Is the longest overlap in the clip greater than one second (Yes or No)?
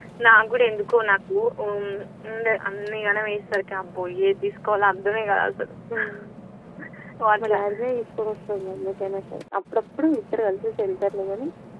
No